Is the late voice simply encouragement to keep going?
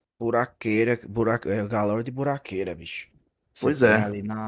Yes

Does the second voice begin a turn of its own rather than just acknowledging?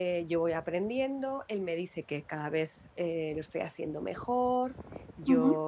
No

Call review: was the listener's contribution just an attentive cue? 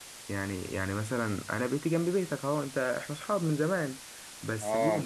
Yes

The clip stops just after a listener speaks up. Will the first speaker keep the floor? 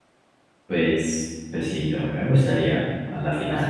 No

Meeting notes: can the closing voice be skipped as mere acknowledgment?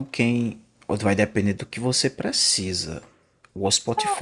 Yes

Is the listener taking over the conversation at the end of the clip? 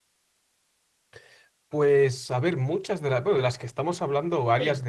No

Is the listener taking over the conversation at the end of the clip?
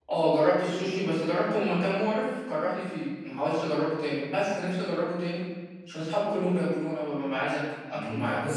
Yes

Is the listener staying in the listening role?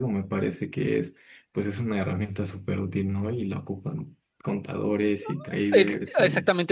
No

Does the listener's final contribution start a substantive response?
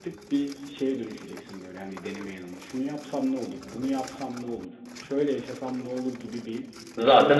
No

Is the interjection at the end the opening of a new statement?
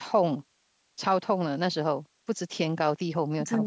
Yes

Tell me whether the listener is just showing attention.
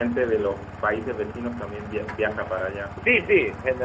No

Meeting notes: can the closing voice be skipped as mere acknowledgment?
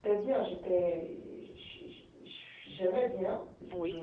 Yes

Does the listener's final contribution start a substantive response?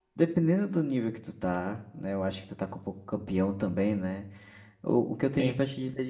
No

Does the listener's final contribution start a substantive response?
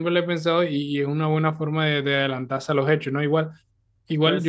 No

